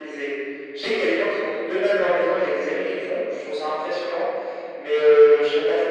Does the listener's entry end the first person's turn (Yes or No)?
No